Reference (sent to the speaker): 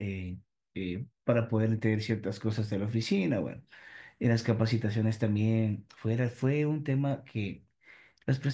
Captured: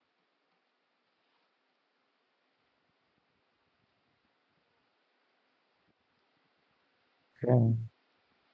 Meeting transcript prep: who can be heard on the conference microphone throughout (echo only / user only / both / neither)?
user only